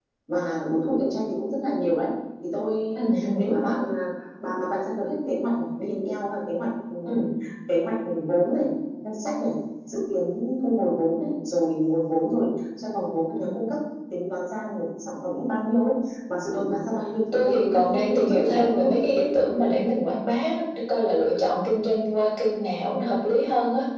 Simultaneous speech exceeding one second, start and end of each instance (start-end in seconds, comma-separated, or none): 17.3-18.9